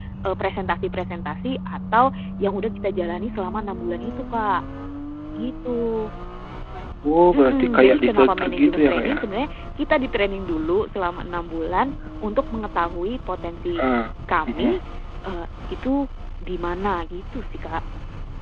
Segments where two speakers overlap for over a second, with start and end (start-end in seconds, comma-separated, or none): 7.3-9.2